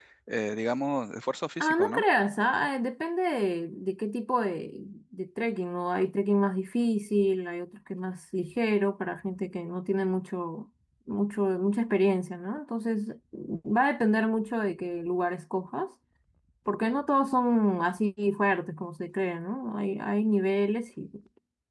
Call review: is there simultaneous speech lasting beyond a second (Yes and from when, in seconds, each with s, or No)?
No